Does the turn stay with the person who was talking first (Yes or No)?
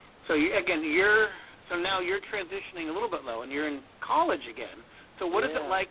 Yes